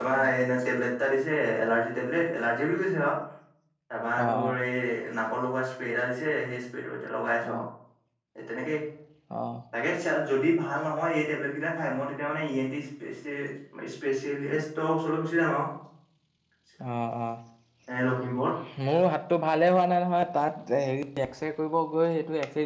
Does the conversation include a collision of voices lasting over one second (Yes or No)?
No